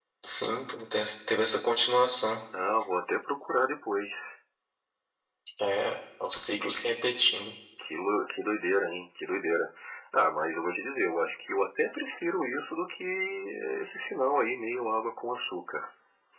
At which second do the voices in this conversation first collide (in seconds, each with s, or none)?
none